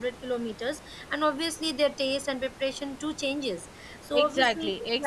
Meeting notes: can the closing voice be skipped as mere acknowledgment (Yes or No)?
No